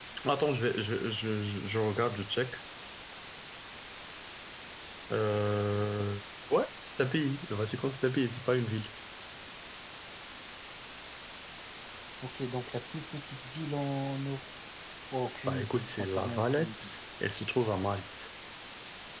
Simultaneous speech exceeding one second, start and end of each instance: 15.5-16.9

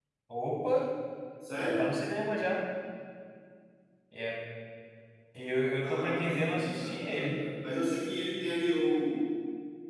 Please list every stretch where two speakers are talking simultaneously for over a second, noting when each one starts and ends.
5.8-7.4

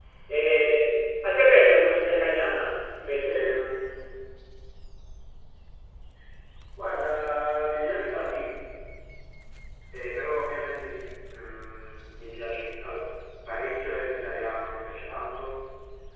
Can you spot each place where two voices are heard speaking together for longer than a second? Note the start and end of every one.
none

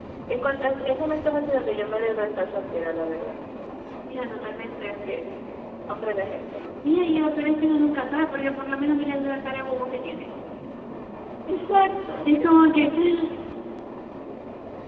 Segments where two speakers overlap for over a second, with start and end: none

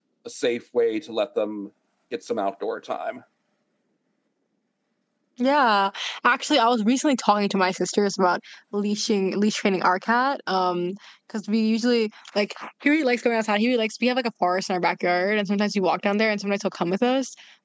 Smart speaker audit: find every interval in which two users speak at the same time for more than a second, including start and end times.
none

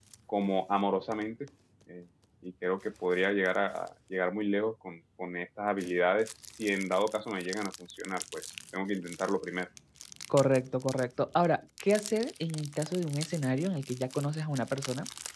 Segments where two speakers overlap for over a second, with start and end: none

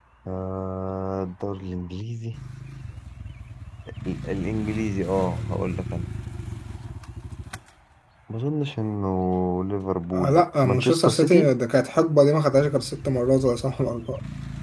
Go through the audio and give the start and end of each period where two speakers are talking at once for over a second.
10.1-11.5

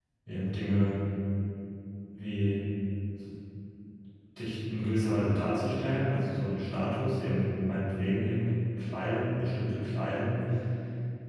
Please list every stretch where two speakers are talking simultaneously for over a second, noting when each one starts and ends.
none

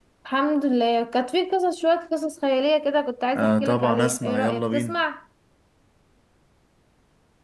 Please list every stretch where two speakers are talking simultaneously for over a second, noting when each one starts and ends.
3.4-5.0

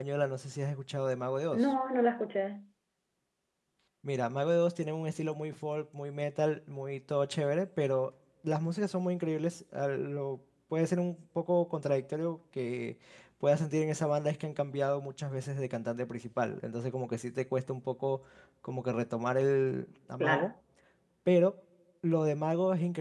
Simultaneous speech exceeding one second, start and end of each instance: none

